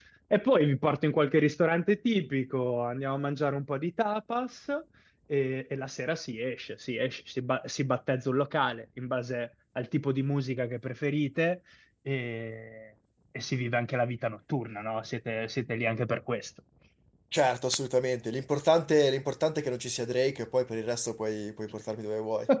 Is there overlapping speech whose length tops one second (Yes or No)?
No